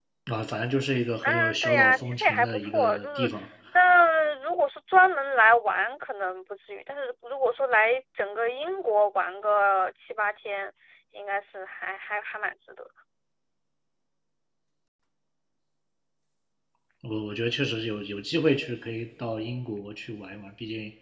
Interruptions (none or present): present